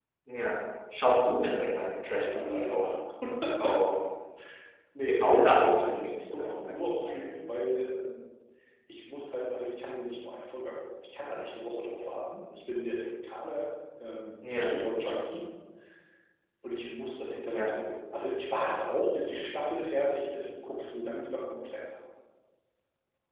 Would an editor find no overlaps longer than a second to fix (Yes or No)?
No